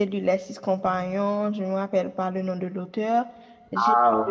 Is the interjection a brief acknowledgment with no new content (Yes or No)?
Yes